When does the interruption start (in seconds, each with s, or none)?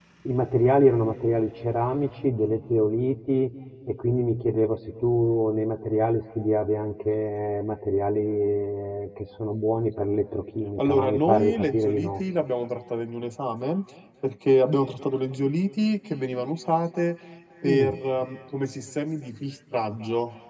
10.8 s